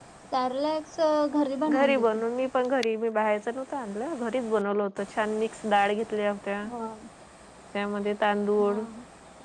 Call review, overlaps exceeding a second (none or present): none